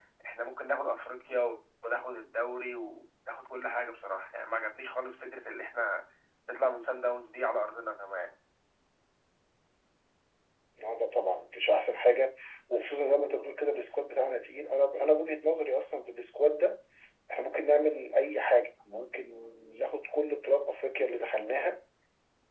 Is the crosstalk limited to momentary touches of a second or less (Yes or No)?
Yes